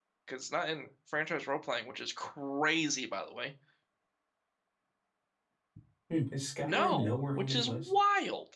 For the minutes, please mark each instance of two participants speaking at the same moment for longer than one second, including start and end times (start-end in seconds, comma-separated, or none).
6.6-7.9